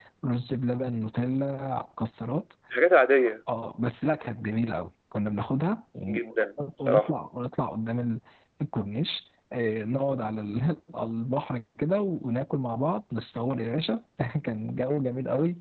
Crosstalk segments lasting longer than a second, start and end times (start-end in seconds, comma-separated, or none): none